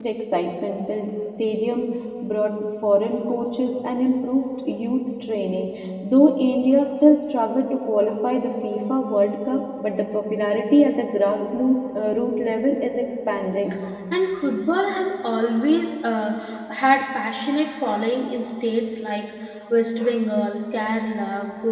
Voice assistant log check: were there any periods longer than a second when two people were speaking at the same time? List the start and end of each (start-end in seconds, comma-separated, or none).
none